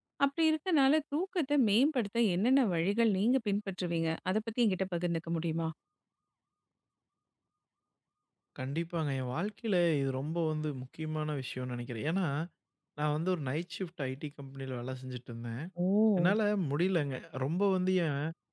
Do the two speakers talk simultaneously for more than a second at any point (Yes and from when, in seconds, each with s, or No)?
No